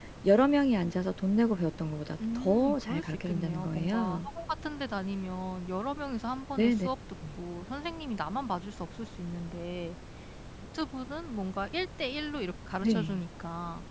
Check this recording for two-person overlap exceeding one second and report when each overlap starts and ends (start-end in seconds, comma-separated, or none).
2.4-4.3